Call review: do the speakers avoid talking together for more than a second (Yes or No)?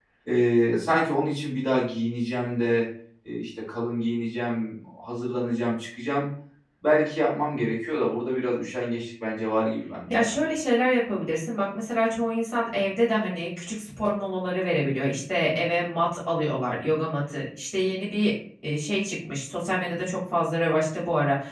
Yes